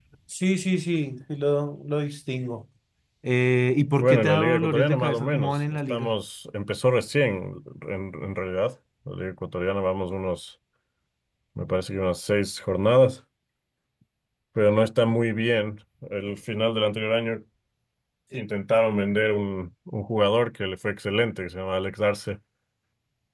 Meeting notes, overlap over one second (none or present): present